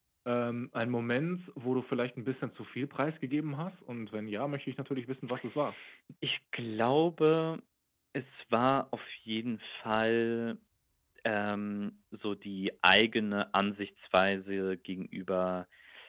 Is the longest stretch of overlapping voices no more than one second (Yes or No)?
Yes